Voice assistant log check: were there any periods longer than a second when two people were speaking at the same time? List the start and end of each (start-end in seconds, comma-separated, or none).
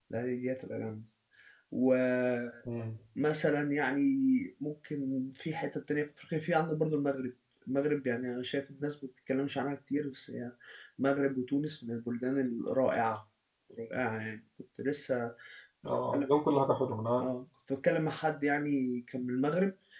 none